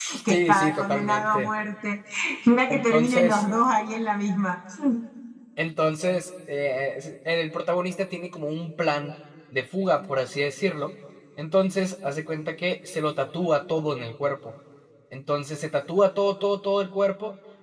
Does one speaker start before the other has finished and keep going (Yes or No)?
Yes